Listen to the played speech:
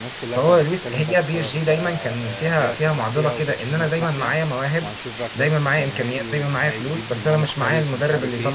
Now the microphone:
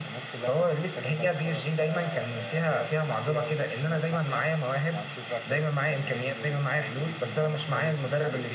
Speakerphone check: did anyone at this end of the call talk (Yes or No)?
No